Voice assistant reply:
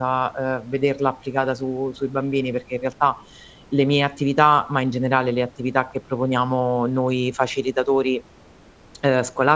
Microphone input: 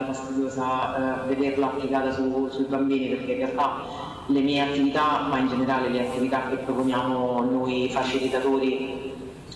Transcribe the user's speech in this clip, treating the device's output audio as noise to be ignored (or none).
none